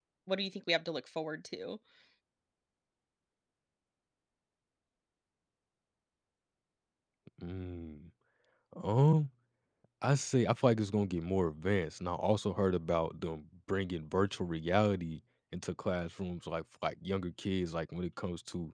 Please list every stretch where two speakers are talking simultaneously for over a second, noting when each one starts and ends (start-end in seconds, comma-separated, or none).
none